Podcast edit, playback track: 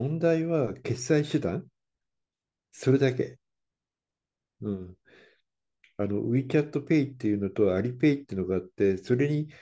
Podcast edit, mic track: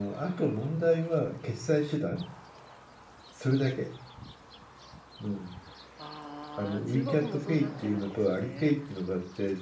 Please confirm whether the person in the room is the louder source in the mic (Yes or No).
No